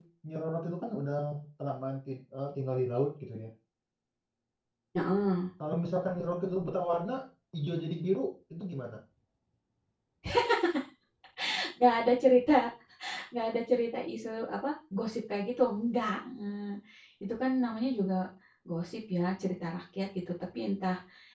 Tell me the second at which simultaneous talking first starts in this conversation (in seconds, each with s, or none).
none